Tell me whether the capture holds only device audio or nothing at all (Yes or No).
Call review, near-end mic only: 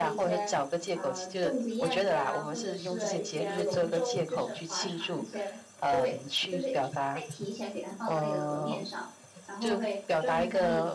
No